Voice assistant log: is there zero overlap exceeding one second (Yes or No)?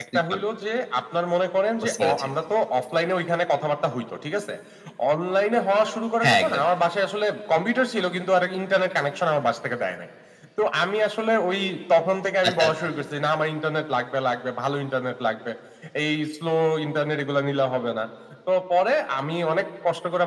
Yes